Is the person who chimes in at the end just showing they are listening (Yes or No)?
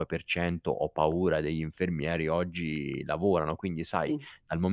Yes